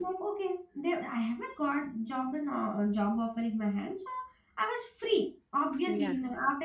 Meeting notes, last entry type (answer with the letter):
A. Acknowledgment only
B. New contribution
A